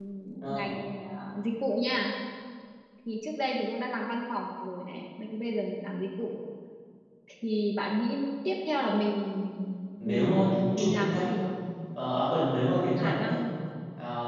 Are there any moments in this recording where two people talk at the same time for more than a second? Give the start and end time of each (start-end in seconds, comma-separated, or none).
10.1-11.3